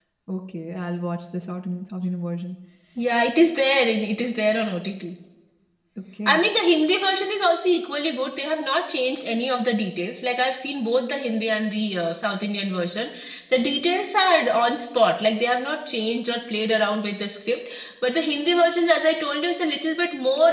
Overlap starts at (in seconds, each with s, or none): none